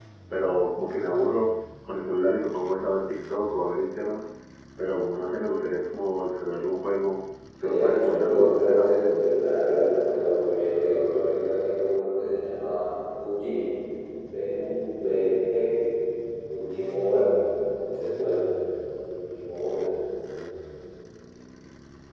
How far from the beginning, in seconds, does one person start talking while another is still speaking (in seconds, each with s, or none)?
7.6 s